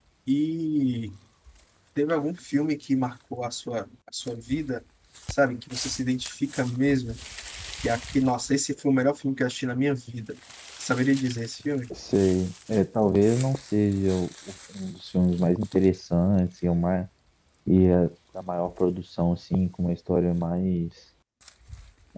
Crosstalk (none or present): none